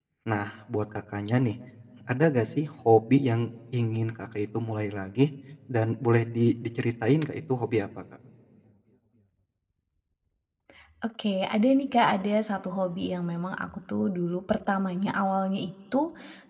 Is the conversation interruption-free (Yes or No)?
Yes